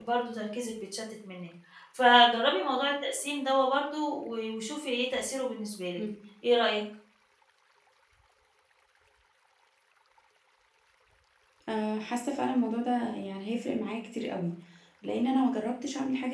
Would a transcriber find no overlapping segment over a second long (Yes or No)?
Yes